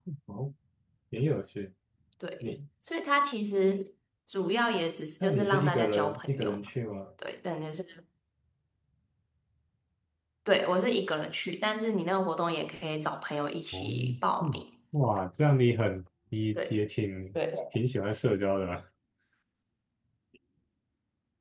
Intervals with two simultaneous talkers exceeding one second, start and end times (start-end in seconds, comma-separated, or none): 5.2-6.6